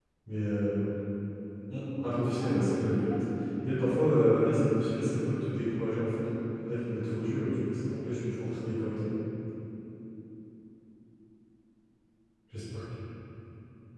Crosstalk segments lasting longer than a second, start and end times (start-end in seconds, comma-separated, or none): 1.7-3.2